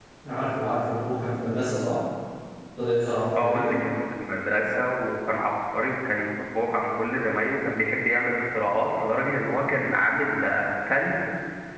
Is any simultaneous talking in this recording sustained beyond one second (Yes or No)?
No